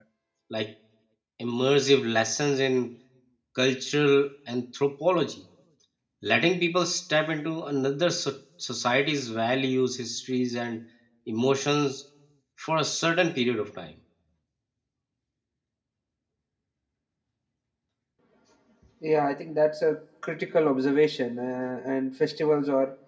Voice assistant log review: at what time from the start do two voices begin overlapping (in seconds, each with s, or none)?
none